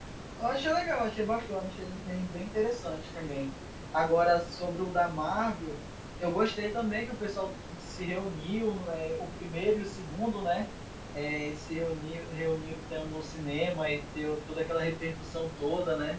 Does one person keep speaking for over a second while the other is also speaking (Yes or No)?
No